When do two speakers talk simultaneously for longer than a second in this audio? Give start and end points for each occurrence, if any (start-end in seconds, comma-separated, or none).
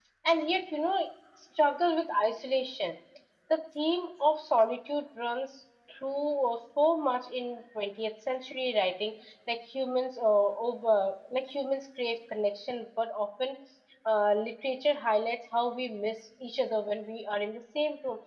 none